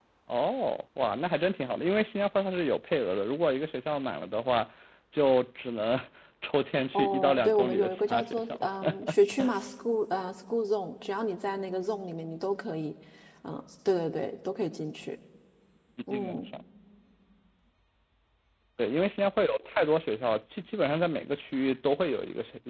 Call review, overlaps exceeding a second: present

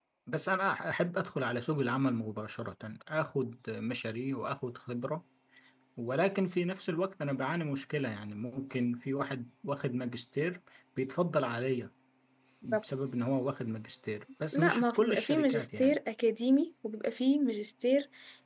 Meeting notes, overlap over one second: present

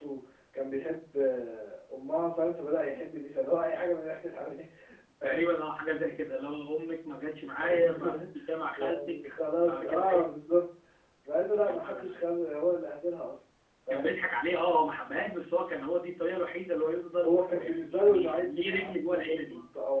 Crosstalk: present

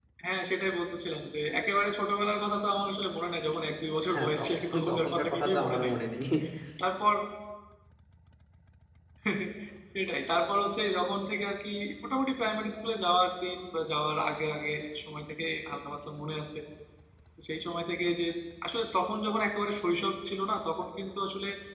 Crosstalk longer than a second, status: present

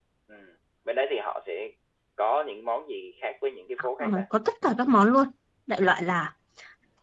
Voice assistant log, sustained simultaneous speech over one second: none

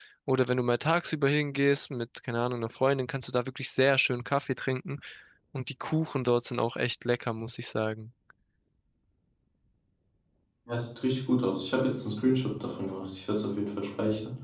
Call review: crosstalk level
none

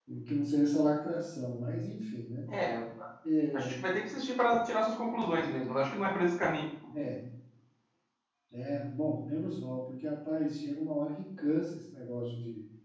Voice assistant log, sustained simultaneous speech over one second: none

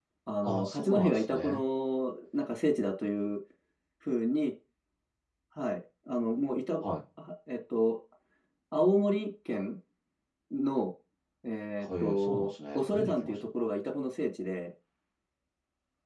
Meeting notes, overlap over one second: present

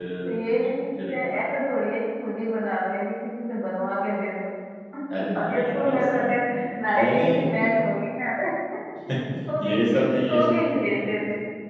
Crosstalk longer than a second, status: present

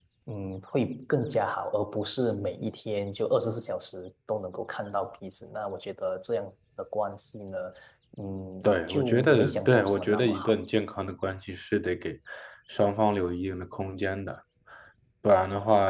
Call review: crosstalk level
present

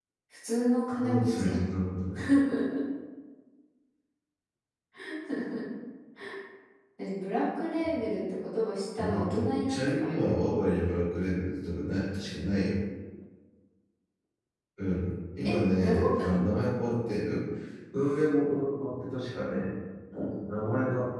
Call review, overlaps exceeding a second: present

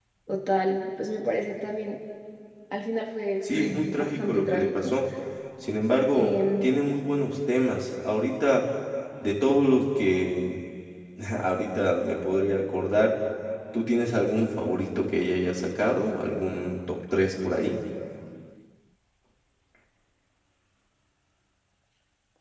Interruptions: present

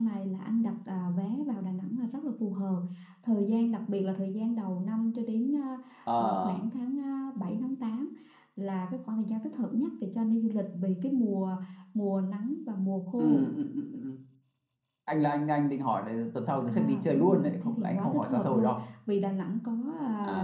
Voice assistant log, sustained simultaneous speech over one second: present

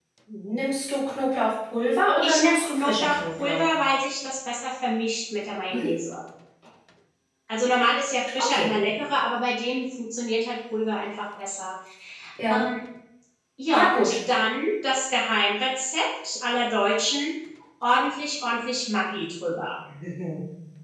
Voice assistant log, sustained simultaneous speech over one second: present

